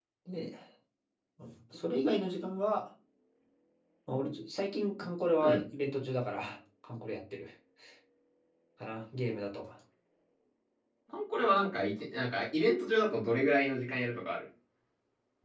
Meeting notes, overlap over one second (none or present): none